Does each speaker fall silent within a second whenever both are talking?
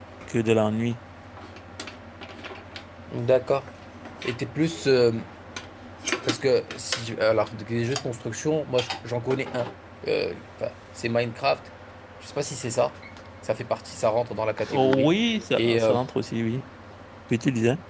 No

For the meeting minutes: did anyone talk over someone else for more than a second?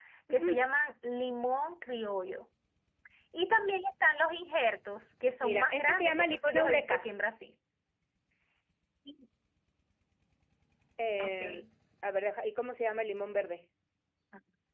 Yes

